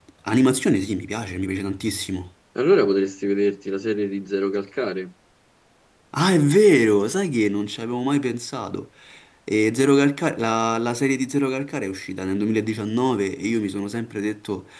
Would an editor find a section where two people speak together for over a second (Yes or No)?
No